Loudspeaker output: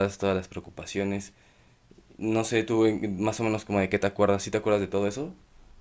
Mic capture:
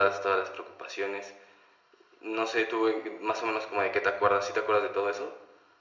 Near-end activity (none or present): none